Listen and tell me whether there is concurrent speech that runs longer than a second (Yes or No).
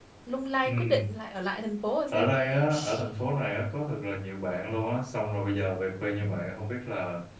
No